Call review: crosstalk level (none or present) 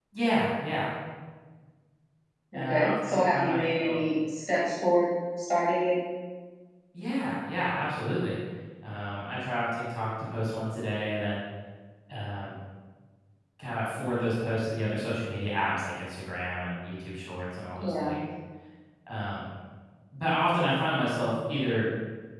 present